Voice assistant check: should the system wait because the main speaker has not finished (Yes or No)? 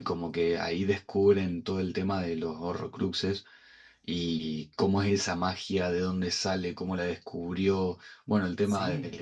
Yes